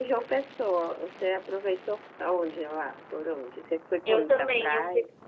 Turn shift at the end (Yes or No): Yes